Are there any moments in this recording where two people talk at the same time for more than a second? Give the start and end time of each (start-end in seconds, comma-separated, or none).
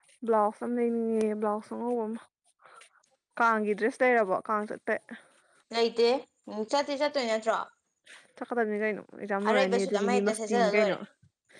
9.5-11.0